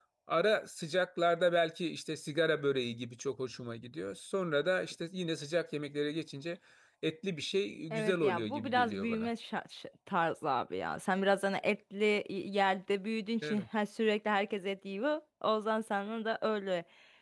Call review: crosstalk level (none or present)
present